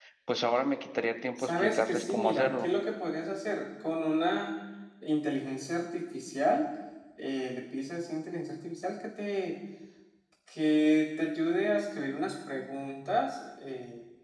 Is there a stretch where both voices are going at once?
Yes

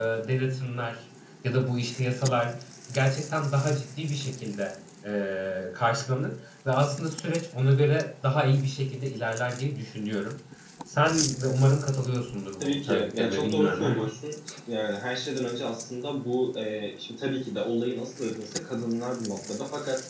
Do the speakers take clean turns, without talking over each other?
No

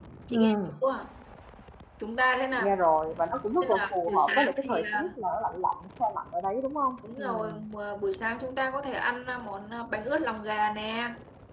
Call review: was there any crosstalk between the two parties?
Yes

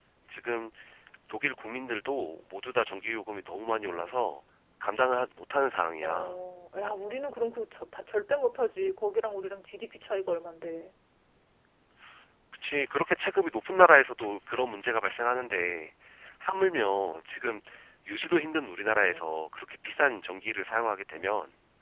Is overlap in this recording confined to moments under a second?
Yes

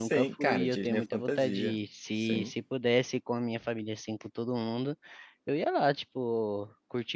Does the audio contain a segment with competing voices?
Yes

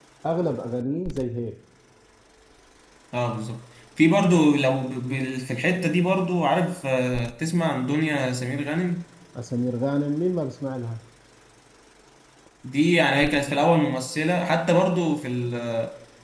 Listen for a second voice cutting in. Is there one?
No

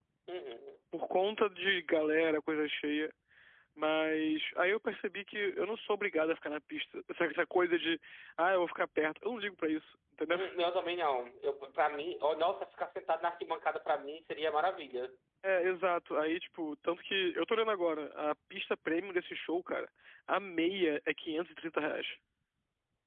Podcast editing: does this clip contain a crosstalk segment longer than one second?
No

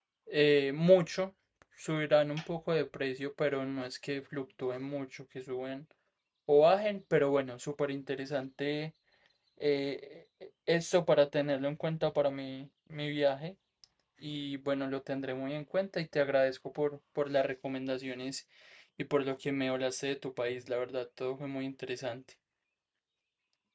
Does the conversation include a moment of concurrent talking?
No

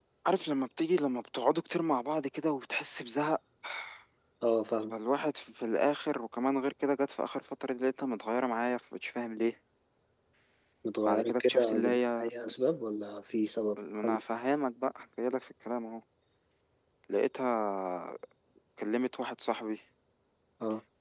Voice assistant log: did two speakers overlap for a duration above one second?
Yes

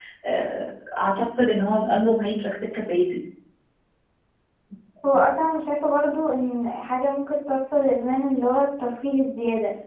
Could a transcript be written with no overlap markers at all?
Yes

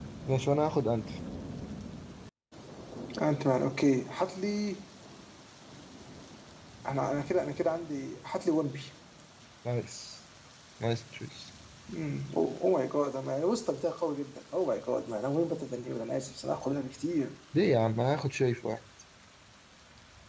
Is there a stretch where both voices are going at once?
No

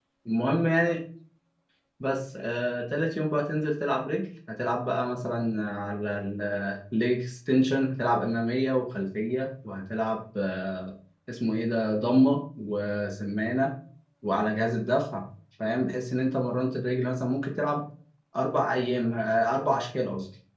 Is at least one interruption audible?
No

